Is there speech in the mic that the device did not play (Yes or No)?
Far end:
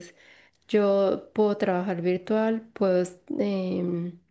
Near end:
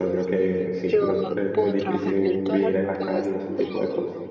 Yes